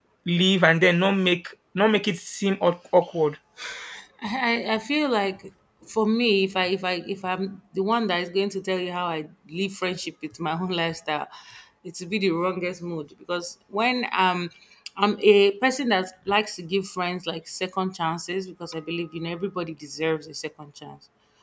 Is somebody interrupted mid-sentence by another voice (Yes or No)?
No